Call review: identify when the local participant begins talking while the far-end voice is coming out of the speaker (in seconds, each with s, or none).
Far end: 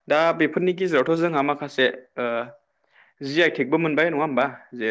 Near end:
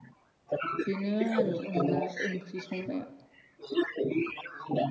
0.8 s